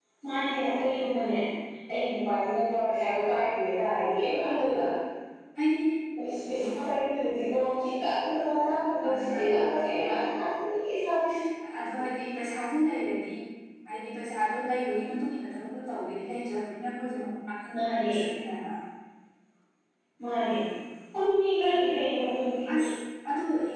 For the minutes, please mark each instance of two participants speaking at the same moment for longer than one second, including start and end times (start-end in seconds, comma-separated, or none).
none